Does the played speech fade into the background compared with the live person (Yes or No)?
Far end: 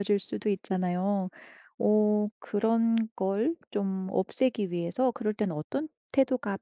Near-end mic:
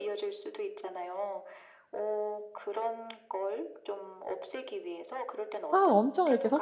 Yes